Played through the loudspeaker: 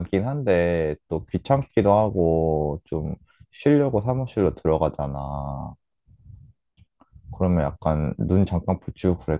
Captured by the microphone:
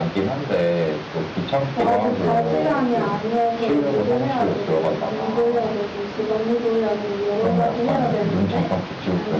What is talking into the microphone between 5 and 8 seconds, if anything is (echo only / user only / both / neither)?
both